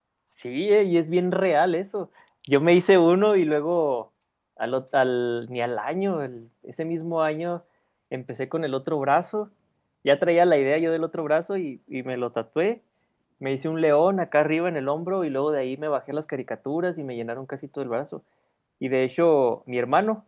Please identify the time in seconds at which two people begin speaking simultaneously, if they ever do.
none

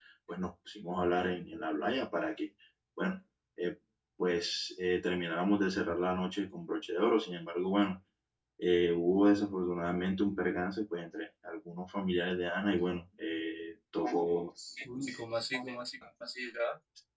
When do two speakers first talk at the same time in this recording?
none

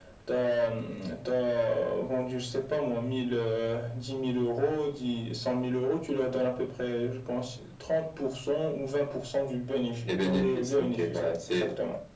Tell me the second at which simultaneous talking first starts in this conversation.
10.1 s

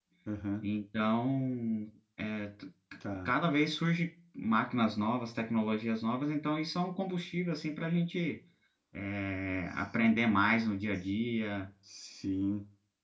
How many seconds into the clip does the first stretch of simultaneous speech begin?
none

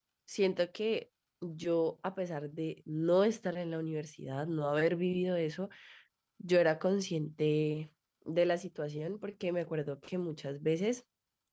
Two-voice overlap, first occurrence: none

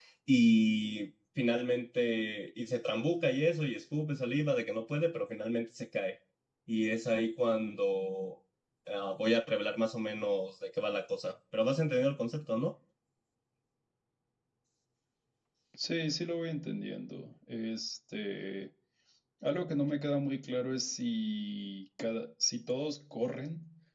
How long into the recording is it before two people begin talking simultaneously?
none

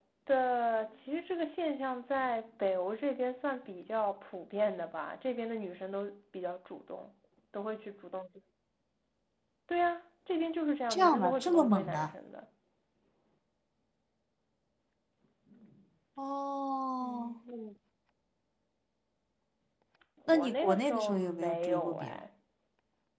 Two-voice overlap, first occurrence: 10.9 s

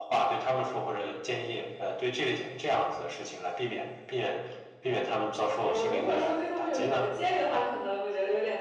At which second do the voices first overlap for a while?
5.6 s

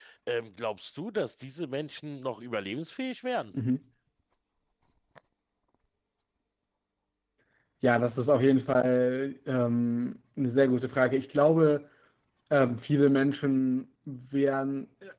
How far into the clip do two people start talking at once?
none

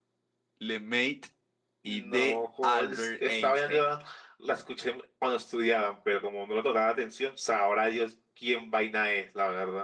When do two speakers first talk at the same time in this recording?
1.8 s

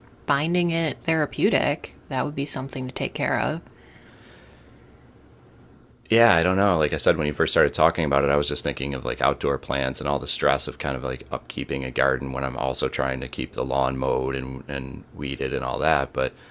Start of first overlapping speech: none

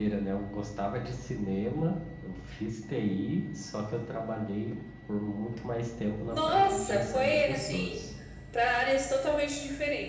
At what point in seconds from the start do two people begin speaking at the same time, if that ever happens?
6.3 s

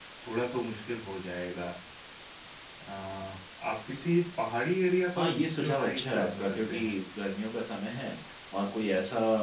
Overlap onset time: 5.2 s

